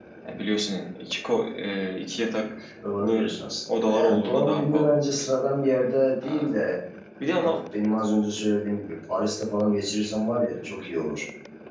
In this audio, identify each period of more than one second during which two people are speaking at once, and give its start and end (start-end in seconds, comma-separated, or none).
3.7-5.2